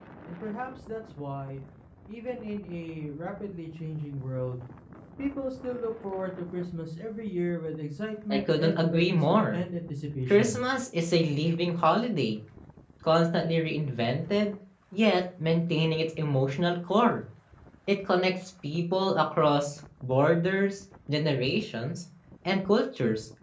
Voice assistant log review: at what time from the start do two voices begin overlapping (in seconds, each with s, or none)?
8.3 s